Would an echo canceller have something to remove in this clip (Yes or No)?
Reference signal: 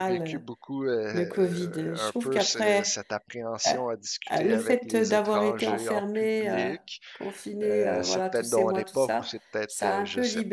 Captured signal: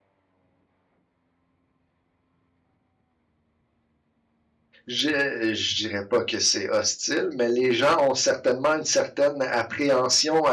No